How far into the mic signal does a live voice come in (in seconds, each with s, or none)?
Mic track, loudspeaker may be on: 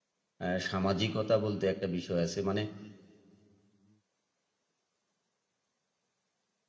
0.4 s